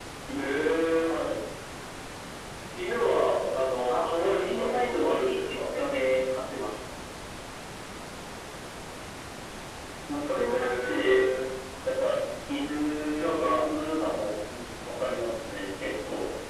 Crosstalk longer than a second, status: present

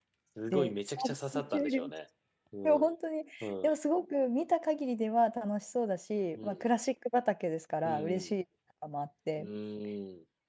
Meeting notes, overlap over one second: present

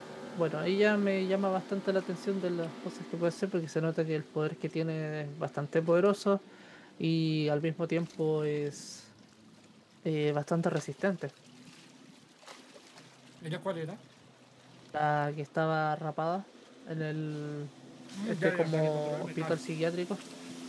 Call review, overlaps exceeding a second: present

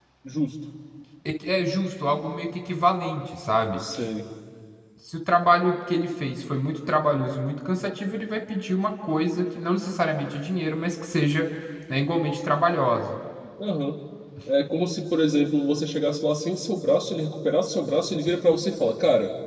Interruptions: none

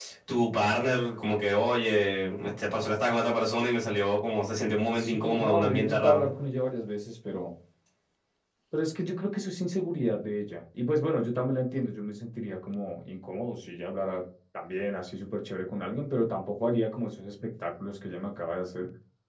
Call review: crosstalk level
present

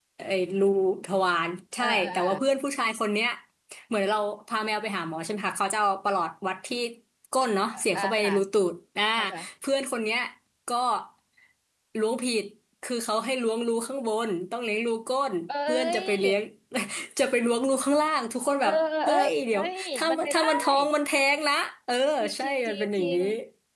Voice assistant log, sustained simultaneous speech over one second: present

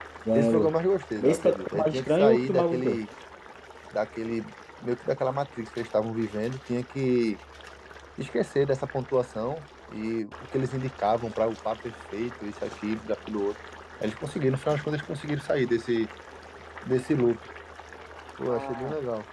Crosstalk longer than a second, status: present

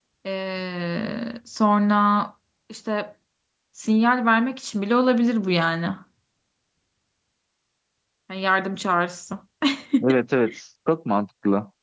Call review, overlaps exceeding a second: none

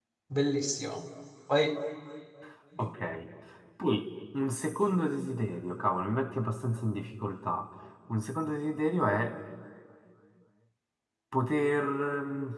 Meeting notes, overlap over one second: none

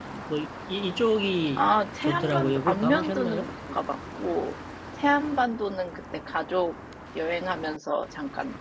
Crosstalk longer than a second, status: present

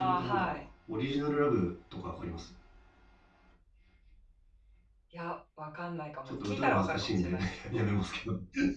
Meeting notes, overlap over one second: present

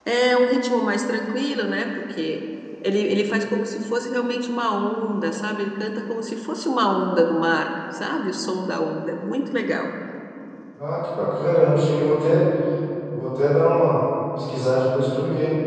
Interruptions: none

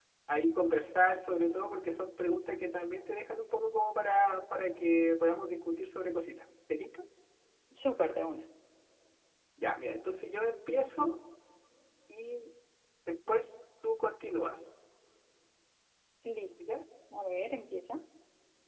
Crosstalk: none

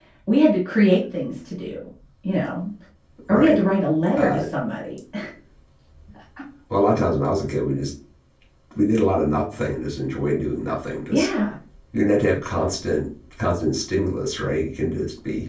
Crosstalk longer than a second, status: none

